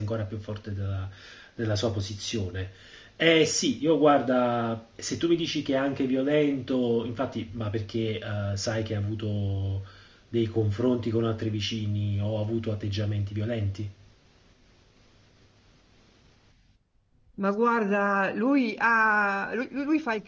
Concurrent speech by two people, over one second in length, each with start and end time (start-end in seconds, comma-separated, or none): none